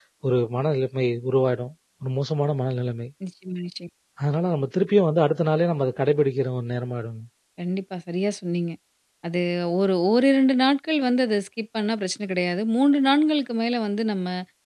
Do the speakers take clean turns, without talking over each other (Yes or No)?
Yes